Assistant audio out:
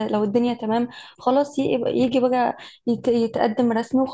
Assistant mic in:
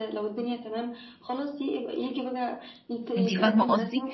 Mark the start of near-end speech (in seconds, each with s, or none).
3.2 s